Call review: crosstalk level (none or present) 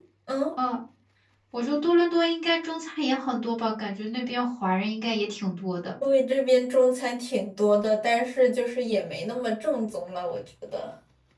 none